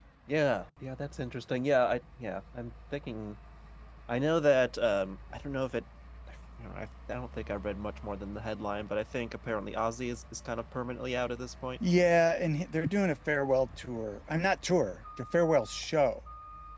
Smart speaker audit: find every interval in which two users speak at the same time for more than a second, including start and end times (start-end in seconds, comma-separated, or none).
none